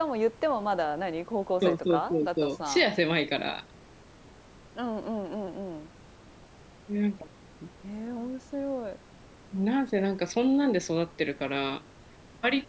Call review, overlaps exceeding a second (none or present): present